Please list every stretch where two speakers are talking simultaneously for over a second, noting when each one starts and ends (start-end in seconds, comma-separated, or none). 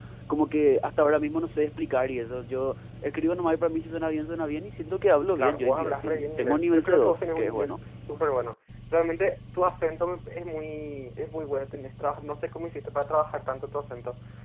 5.4-7.7